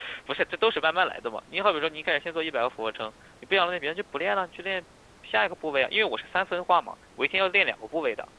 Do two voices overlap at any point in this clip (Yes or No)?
No